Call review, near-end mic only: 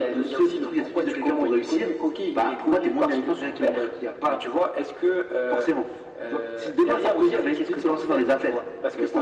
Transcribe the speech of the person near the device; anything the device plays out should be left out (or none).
none